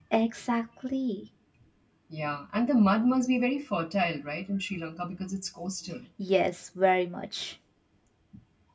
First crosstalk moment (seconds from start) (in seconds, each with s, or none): none